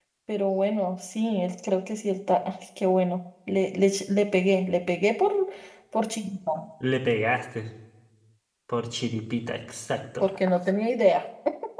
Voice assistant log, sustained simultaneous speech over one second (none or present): none